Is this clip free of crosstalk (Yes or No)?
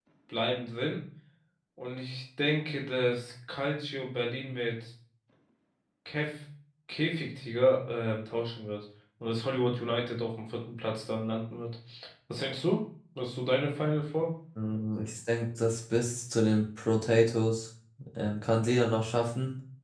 Yes